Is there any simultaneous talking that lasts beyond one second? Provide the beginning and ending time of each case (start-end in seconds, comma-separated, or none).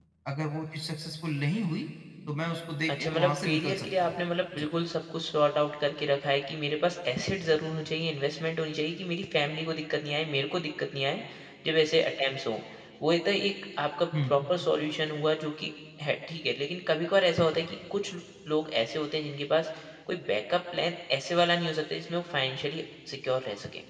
2.9-4.1